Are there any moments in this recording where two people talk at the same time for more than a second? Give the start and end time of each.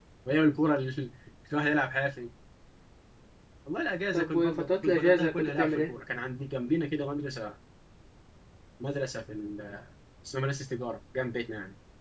4.1-5.9

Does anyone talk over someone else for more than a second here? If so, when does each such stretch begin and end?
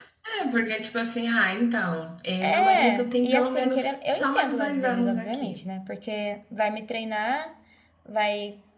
2.4-5.6

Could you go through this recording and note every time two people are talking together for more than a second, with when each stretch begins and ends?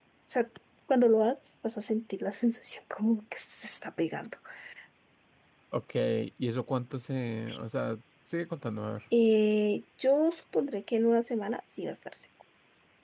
none

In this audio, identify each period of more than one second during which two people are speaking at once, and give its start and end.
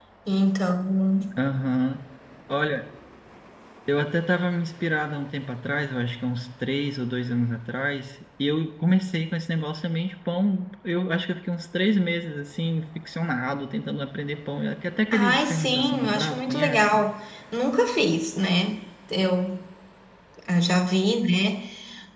15.1-17.0

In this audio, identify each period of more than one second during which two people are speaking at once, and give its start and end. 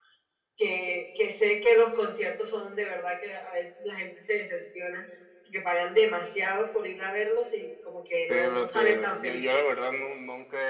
8.3-9.6

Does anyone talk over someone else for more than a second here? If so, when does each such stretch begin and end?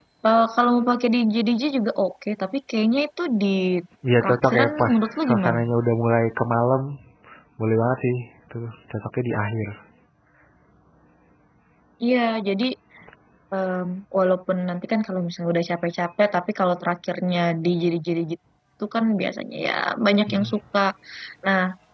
4.2-5.6

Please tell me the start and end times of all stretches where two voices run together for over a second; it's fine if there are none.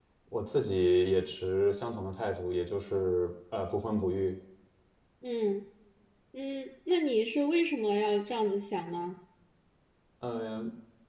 none

